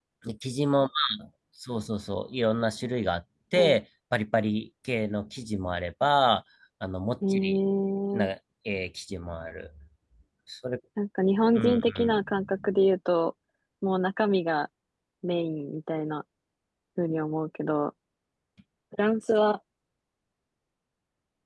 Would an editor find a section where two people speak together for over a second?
Yes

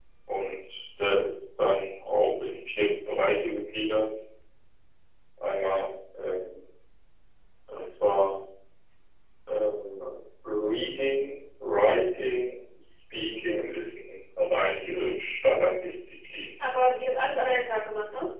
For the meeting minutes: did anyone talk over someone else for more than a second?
No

